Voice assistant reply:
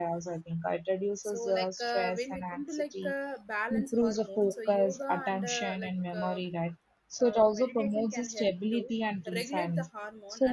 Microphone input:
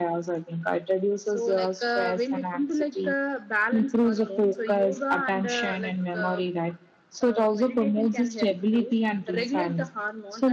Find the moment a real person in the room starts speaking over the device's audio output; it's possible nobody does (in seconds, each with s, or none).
none